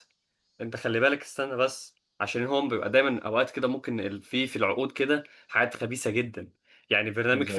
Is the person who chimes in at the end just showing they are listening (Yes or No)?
Yes